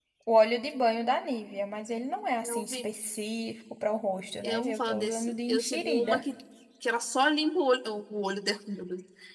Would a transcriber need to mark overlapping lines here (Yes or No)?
Yes